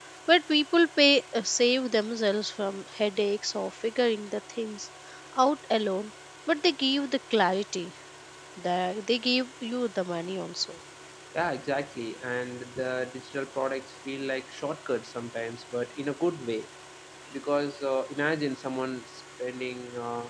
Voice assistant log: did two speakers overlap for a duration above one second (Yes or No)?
No